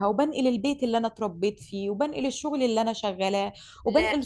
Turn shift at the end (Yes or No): No